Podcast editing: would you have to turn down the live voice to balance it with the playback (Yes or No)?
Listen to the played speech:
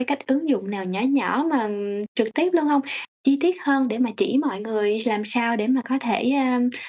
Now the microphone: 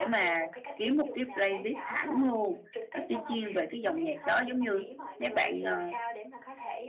Yes